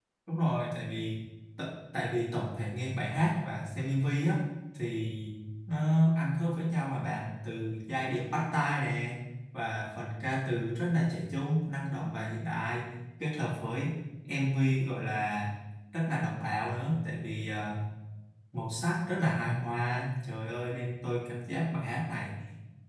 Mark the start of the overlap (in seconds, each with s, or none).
none